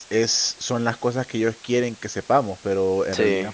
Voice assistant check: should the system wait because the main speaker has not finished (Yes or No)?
Yes